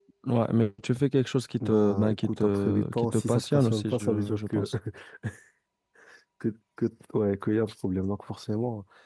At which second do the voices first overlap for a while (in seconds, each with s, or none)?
1.6 s